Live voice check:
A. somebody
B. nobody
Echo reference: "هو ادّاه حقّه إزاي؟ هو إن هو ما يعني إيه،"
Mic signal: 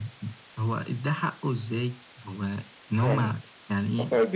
A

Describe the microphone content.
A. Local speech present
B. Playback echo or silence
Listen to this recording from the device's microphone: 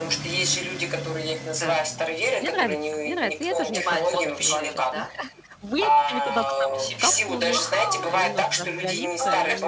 A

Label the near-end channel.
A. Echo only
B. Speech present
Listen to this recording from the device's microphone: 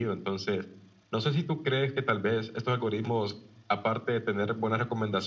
A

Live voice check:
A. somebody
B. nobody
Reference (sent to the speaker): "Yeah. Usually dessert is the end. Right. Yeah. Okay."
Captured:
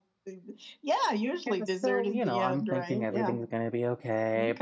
A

